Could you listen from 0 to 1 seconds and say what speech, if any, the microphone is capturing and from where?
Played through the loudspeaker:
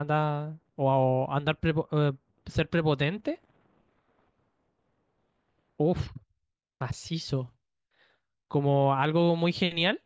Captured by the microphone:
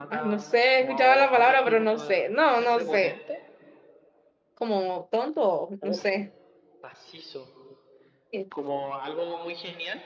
both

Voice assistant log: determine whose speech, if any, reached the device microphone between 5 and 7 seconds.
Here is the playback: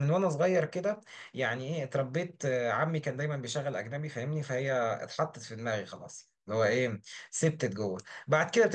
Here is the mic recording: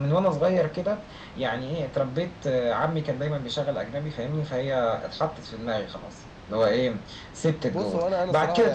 echo only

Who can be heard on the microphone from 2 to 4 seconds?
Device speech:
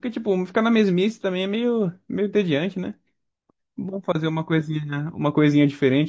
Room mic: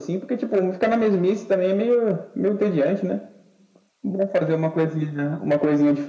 echo only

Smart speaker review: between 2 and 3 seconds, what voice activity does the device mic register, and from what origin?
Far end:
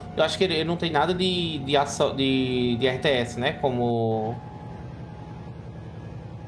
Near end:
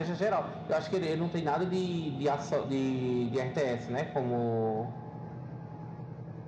echo only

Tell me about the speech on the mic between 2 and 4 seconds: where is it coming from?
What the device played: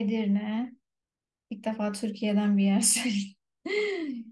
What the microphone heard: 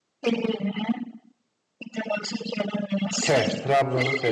both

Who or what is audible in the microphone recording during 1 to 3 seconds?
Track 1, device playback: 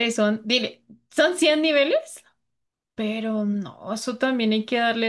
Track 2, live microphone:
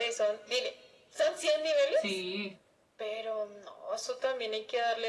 both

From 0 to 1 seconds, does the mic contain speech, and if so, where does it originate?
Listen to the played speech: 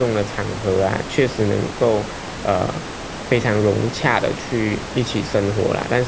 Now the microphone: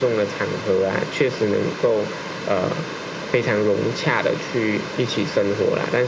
echo only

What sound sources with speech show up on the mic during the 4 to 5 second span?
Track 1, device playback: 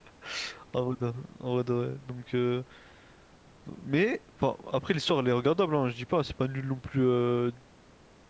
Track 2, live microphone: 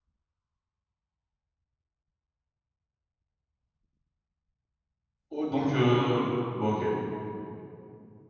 neither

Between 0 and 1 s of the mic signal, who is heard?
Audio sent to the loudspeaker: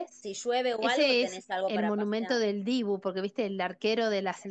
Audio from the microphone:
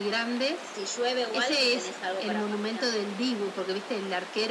echo only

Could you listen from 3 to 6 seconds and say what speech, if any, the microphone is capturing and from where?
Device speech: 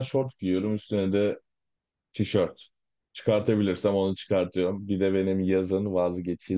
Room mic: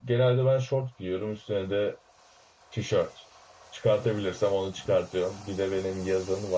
echo only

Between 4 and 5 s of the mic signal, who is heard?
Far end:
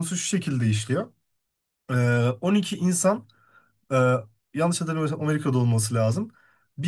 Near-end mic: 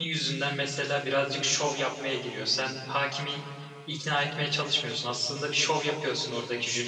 user only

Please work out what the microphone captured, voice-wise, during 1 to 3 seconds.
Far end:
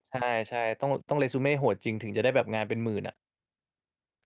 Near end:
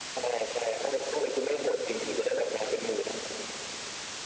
echo only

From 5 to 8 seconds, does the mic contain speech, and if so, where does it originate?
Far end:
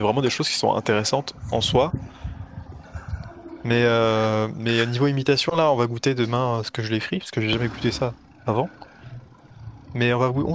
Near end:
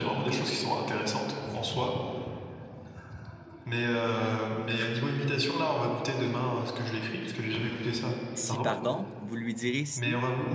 echo only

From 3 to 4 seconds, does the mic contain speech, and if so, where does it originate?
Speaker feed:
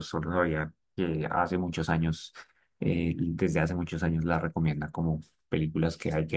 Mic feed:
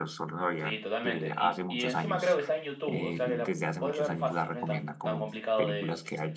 both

